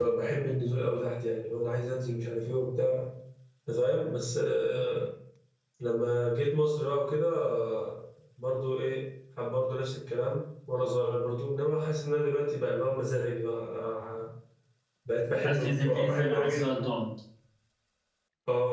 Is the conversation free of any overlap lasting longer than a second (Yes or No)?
No